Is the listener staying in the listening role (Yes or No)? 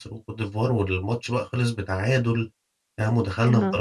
No